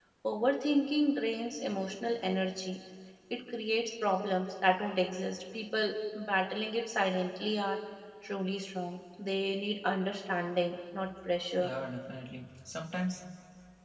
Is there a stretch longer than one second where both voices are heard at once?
No

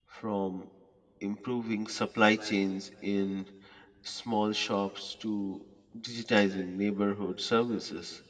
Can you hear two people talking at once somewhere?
No

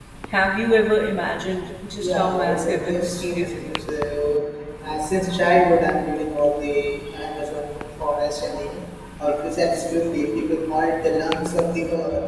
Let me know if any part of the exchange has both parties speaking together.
Yes, from 2.0 s

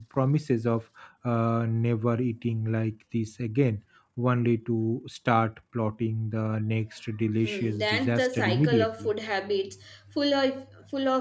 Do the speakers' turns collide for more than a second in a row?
Yes, from 7.4 s

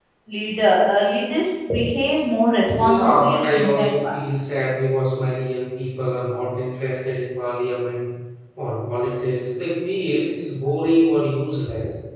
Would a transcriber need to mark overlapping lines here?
Yes, from 2.7 s

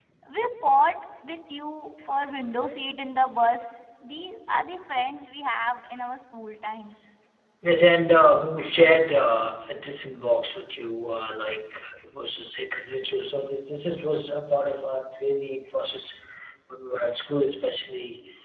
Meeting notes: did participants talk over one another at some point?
No

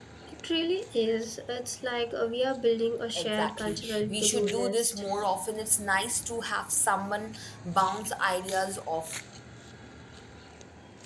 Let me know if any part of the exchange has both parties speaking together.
Yes, from 3.1 s

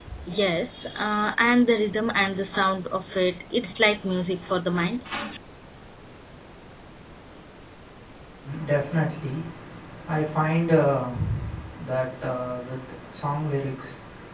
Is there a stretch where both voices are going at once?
No

